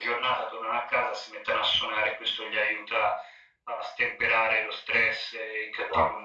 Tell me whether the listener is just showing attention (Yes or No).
Yes